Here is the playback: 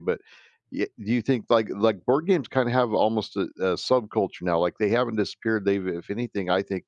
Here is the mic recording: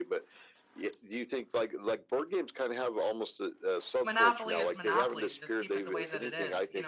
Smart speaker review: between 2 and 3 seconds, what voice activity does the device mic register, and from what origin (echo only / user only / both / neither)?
echo only